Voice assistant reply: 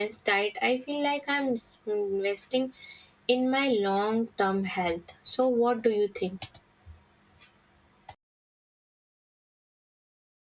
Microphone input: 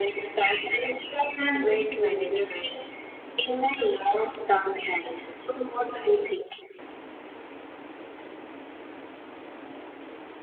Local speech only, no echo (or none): weight management.